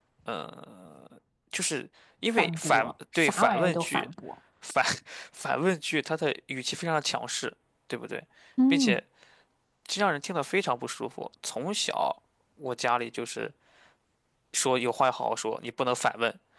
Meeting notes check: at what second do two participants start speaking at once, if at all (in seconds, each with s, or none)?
2.4 s